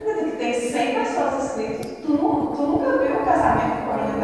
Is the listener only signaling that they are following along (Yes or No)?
No